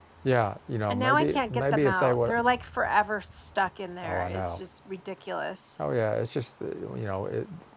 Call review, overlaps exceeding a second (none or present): present